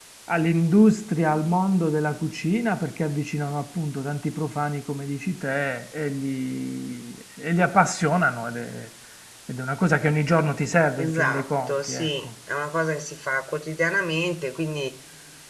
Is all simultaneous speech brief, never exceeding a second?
No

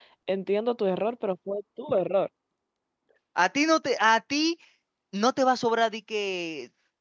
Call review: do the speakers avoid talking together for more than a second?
Yes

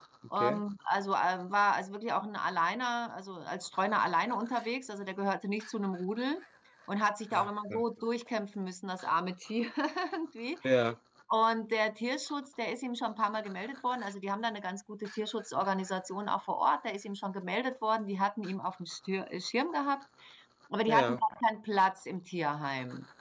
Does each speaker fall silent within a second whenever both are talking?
Yes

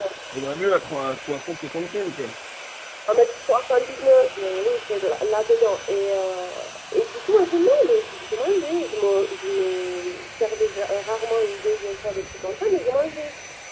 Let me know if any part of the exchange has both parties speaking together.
No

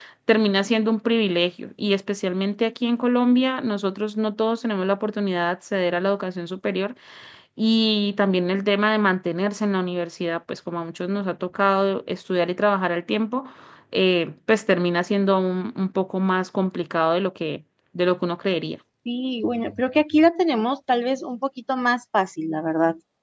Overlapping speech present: No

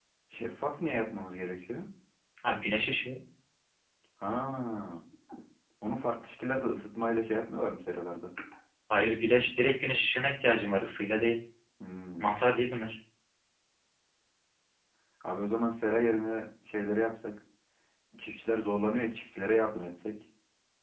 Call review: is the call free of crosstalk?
Yes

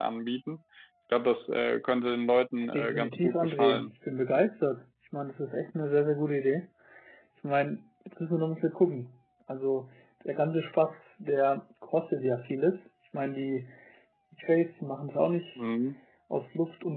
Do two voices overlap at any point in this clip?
Yes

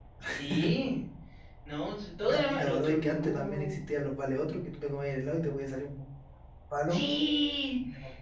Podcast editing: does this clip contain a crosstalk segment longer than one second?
Yes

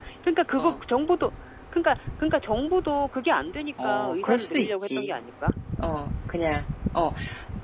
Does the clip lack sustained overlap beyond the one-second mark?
No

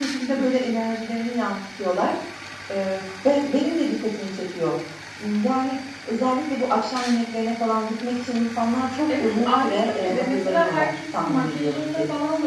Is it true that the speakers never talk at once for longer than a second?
No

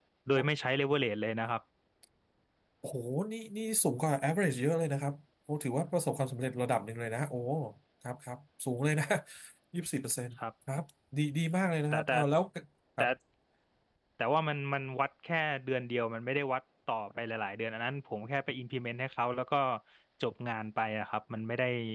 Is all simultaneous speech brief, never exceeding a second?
Yes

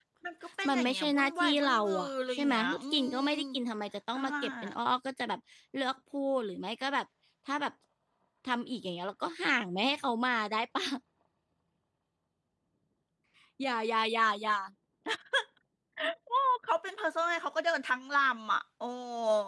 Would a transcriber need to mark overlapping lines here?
Yes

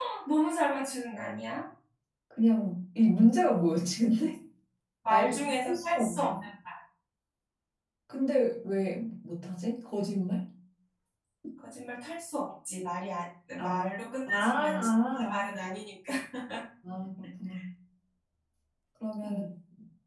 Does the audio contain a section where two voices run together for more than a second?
Yes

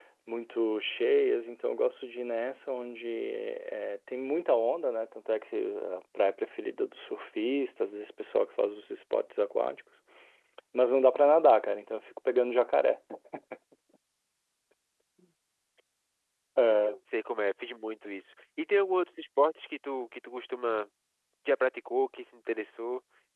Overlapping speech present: No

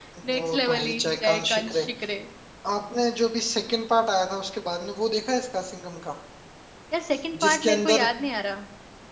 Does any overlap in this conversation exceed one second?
Yes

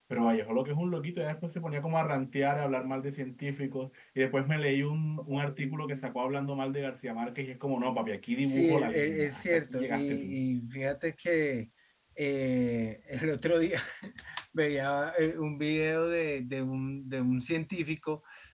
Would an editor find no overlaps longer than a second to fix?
No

